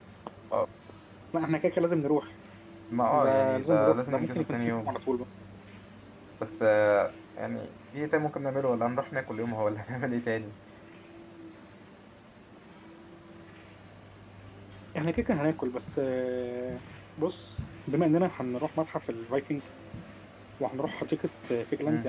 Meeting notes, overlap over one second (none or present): present